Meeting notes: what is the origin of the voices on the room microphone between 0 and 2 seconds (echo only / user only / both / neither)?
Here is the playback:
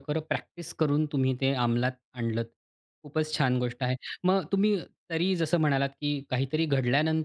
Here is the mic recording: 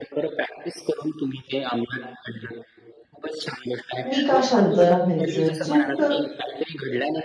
echo only